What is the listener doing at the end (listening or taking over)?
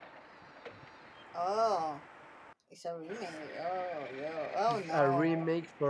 taking over